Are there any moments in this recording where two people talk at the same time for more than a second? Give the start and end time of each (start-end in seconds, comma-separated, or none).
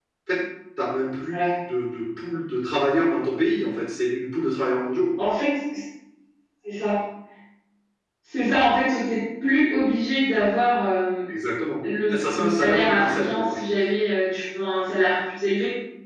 12.1-13.8